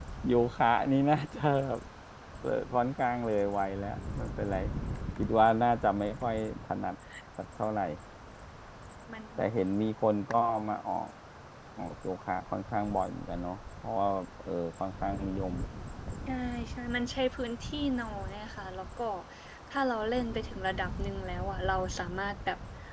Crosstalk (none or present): none